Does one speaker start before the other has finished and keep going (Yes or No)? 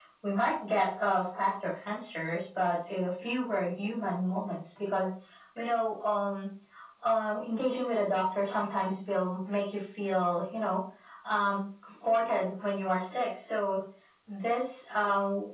No